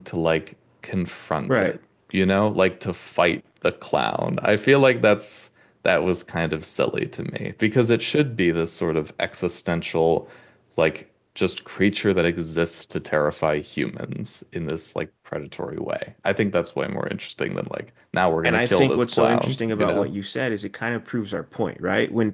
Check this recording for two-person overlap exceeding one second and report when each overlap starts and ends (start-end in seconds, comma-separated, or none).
18.5-20.1